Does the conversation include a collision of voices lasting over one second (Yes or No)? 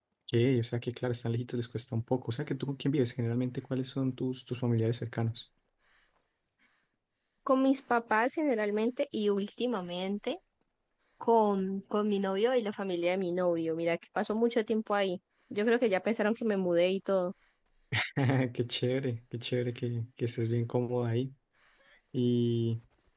No